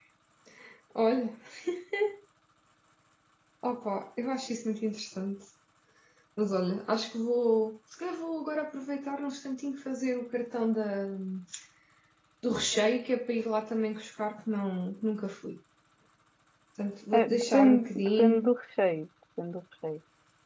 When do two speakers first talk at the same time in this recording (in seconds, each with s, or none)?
17.2 s